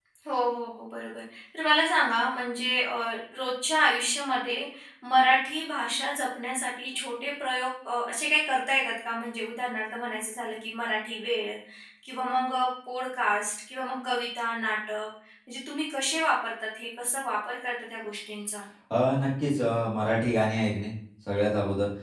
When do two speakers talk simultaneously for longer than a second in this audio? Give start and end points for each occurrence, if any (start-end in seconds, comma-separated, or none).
none